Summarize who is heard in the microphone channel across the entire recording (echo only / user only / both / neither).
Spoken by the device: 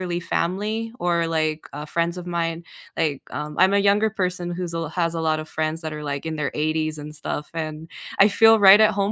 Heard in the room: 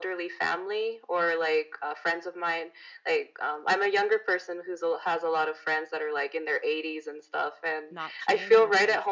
both